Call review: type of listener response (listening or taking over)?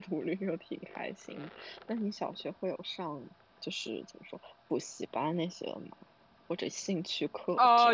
taking over